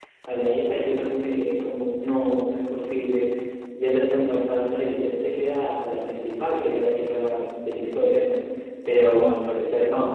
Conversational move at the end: listening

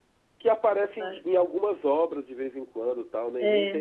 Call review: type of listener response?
listening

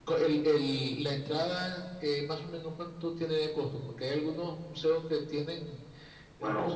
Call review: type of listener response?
listening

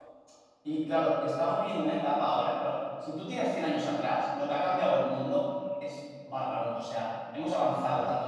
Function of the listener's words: listening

